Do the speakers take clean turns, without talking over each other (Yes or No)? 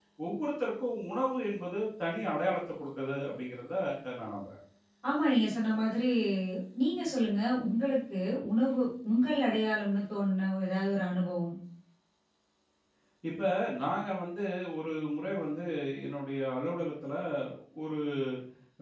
Yes